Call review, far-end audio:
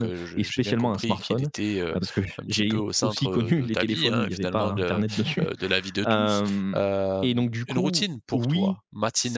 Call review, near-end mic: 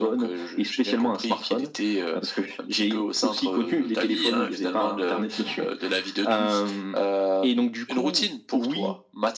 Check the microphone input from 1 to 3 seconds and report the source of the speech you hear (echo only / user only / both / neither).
echo only